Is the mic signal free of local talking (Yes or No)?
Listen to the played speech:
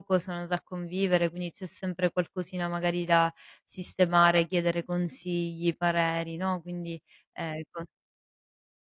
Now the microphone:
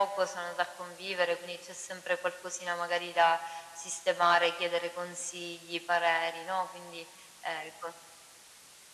Yes